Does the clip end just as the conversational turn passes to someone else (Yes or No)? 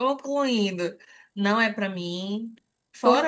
No